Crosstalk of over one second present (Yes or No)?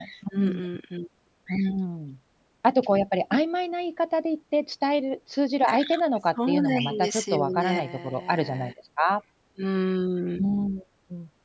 Yes